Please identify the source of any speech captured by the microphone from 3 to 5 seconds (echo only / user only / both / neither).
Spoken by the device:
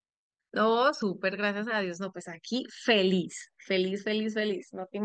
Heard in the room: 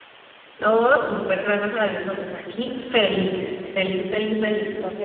echo only